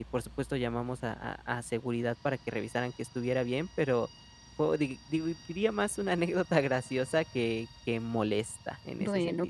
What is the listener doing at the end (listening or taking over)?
taking over